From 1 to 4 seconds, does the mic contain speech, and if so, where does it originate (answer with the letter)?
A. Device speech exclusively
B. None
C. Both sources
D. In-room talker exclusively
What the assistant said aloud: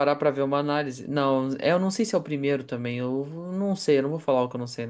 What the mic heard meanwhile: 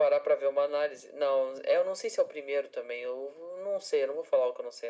A